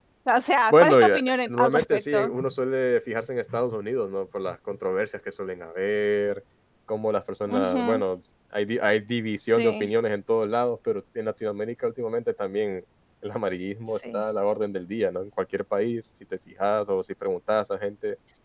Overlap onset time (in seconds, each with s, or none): 0.7 s